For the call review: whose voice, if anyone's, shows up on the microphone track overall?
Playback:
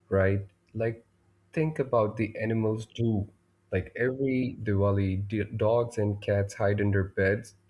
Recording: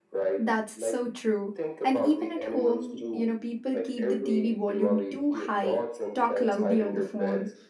both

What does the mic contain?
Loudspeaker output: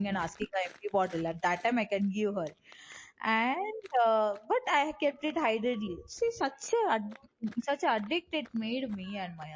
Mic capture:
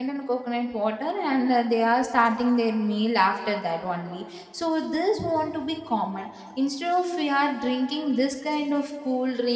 user only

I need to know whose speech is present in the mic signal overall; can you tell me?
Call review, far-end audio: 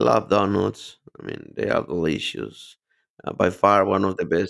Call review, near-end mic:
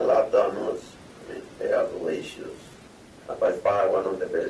echo only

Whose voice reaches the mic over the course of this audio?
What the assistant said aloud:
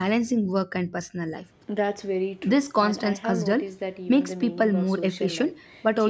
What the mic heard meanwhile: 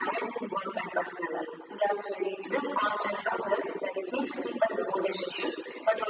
echo only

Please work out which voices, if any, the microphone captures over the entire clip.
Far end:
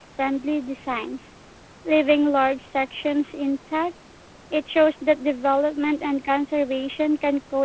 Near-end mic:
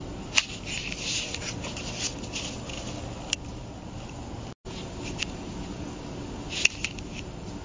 neither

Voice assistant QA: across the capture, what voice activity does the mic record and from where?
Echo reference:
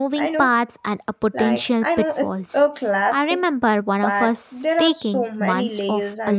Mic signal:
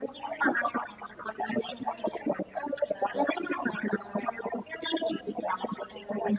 echo only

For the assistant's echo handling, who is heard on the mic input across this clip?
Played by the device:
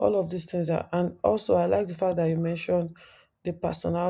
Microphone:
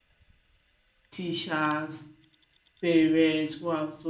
user only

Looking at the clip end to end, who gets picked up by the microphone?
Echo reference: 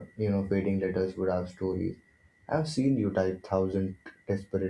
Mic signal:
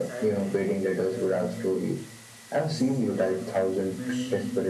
both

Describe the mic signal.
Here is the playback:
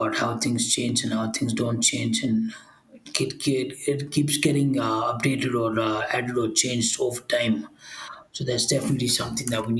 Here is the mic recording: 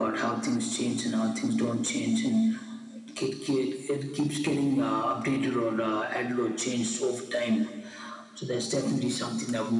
echo only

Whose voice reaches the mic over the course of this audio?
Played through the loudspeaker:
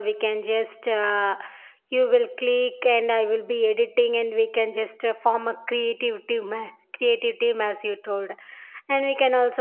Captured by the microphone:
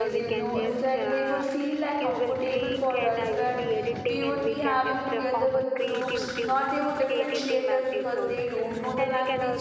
both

